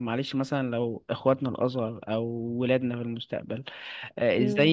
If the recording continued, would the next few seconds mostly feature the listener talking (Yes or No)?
No